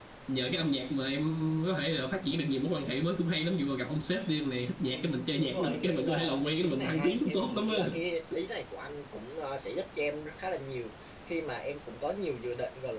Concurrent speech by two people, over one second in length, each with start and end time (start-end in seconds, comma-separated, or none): 5.4-7.9